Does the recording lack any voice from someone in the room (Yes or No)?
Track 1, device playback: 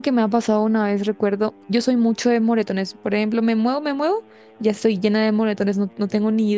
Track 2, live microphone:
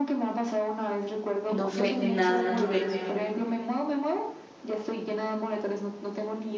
No